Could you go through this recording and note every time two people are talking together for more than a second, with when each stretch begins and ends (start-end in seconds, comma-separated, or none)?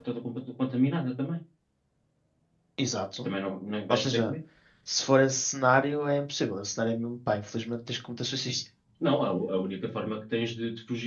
none